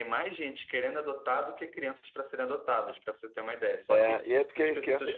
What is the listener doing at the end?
taking over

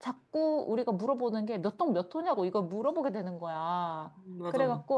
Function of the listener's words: listening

